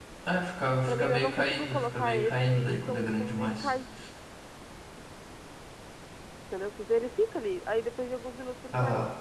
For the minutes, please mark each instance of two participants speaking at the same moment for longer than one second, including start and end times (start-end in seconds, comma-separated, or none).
0.9-3.7